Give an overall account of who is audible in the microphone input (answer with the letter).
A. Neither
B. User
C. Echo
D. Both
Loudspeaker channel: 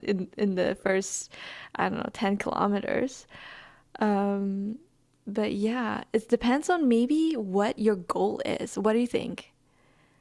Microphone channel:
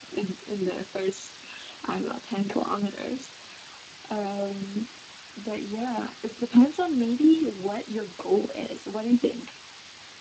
C